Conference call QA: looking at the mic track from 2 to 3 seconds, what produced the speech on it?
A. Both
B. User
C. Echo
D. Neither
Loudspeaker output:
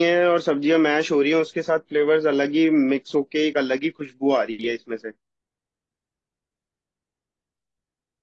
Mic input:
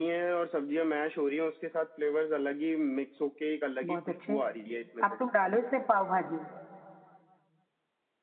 C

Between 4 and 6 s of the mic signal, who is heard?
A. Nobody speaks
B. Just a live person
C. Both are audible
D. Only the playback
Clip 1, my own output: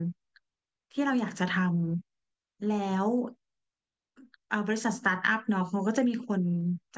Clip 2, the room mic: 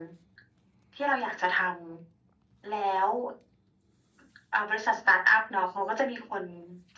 D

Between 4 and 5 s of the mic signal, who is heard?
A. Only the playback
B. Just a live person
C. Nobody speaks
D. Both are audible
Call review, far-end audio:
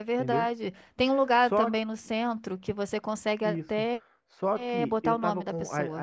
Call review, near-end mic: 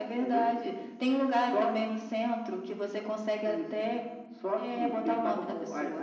A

